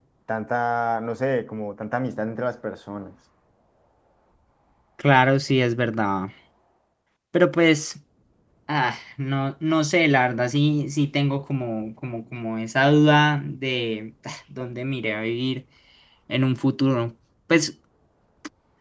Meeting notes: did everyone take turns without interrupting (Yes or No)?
Yes